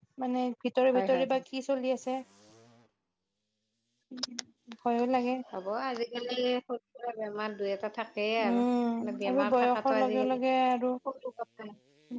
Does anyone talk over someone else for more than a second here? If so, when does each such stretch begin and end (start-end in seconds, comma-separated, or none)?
9.0-10.4